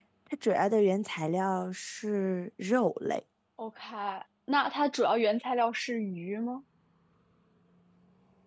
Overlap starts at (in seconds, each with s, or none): none